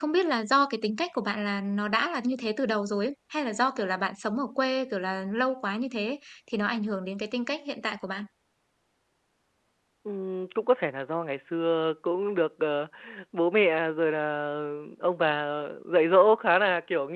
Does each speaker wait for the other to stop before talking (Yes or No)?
Yes